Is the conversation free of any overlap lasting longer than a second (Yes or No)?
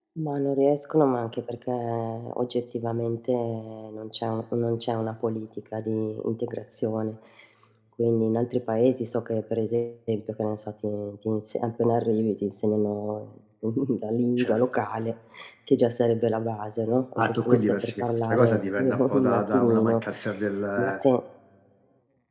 No